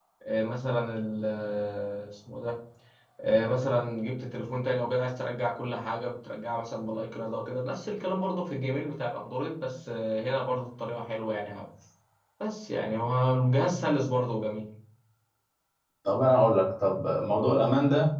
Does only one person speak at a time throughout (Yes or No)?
Yes